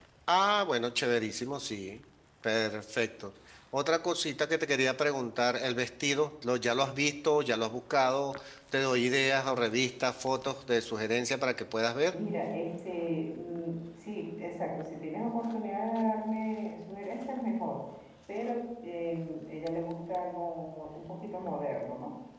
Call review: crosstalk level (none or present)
none